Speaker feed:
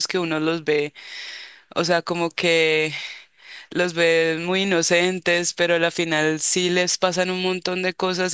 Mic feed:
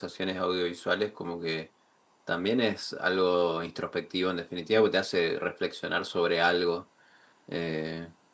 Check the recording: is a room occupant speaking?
Yes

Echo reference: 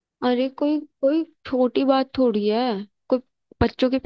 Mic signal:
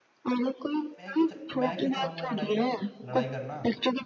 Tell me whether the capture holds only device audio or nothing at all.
No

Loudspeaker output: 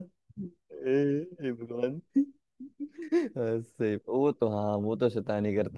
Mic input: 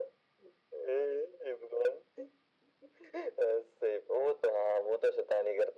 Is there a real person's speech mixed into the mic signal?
No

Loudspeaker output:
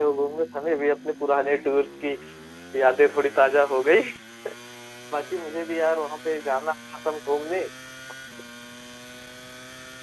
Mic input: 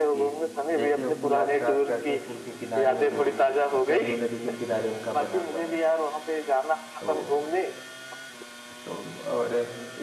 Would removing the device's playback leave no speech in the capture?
No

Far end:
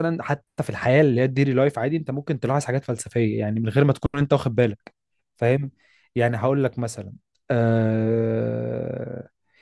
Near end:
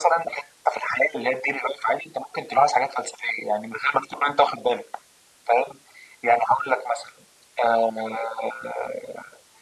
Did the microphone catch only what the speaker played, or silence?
Yes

